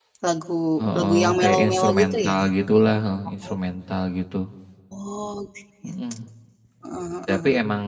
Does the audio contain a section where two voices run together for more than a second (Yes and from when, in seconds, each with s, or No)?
Yes, from 0.9 s